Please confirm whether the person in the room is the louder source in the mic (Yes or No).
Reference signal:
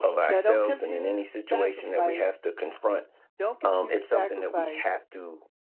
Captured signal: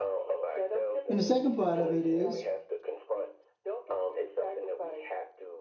Yes